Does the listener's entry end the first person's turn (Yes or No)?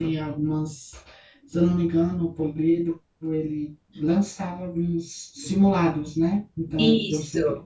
No